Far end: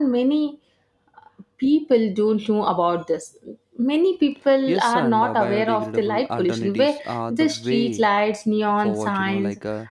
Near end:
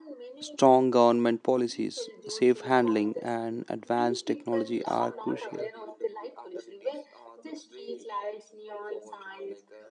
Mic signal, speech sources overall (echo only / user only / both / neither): both